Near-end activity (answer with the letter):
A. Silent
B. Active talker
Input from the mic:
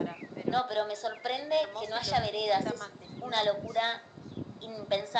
A